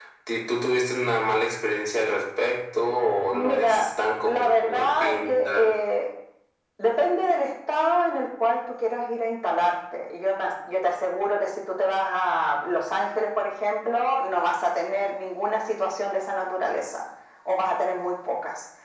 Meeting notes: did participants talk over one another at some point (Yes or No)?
Yes